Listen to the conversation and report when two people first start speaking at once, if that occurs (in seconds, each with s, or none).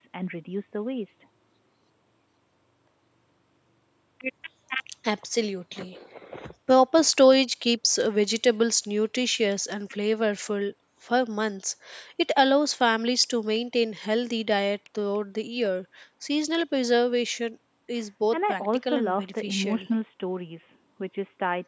18.3 s